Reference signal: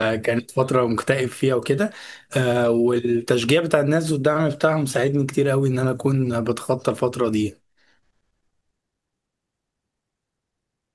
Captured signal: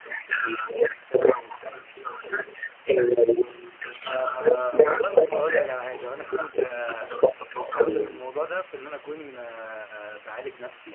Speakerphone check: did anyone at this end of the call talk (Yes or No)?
Yes